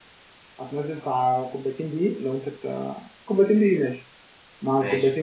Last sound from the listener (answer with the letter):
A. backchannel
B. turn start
B